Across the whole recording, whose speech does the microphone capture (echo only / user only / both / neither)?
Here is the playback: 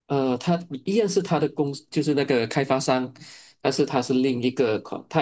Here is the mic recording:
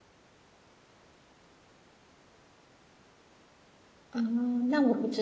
user only